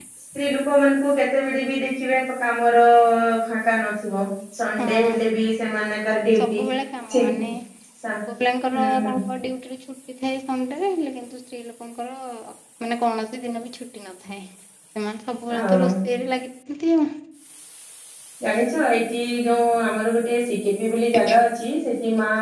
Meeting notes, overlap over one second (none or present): none